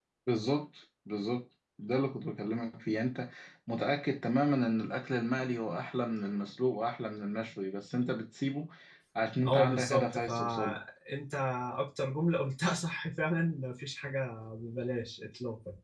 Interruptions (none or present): present